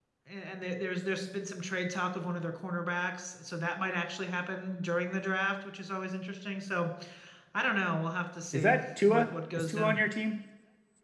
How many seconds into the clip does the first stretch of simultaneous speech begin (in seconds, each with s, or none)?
8.5 s